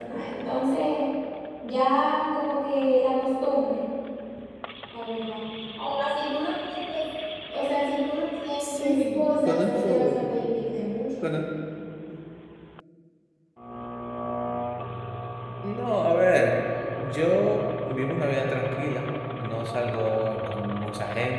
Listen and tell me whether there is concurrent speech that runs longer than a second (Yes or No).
Yes